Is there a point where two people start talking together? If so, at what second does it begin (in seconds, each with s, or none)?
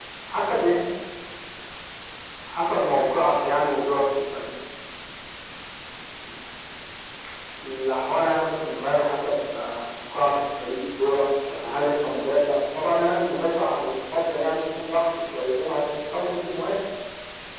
none